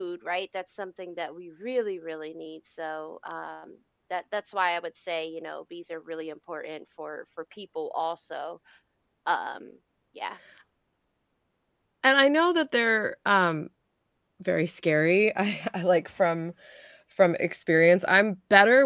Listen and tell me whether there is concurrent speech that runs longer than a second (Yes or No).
No